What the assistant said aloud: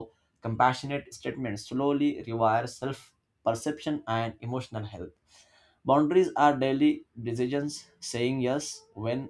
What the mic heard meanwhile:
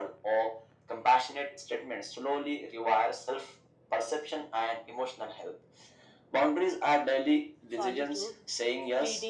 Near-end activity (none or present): present